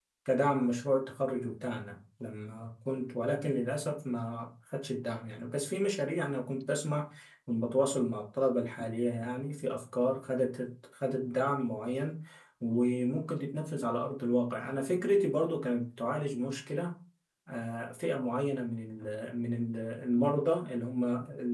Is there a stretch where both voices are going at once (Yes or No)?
No